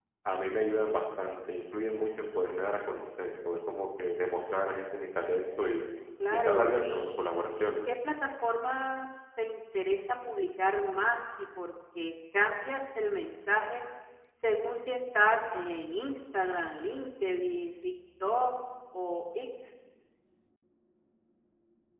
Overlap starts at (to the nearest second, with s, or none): 6 s